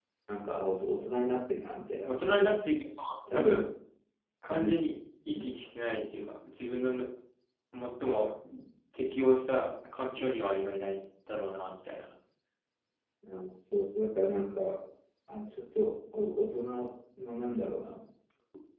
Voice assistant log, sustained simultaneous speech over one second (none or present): none